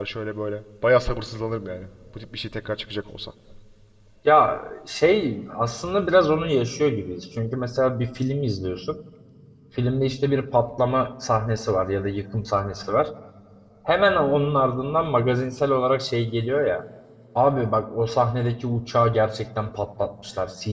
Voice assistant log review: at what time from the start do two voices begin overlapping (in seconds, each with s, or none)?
none